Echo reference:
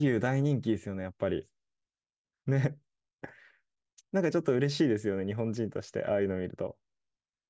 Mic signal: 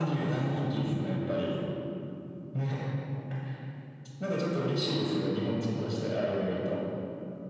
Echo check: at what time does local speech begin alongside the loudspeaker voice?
none

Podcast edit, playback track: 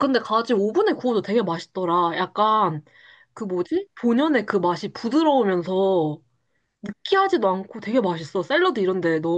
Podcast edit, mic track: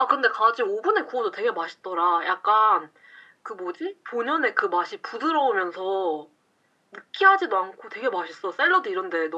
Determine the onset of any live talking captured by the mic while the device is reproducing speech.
none

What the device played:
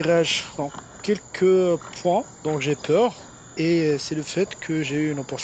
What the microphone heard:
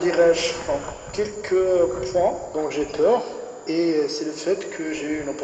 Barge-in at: none

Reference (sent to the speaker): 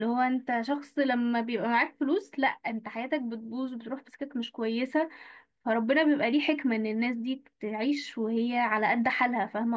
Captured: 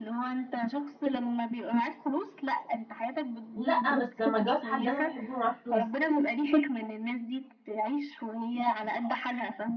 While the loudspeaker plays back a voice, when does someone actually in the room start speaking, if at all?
3.5 s

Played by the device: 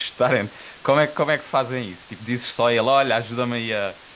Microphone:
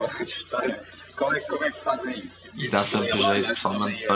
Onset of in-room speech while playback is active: 2.5 s

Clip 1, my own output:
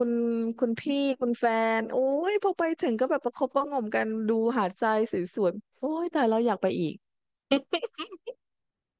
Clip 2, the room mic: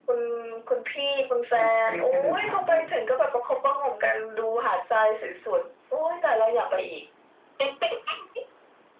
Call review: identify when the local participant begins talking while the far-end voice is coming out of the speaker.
1.5 s

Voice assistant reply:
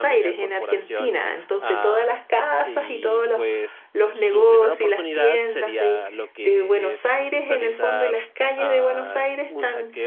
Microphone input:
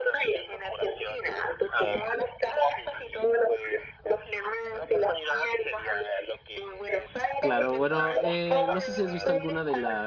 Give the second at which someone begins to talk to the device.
7.4 s

